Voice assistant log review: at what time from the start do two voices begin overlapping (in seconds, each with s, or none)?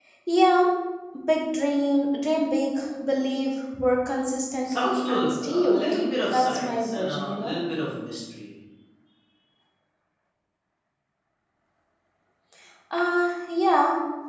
4.6 s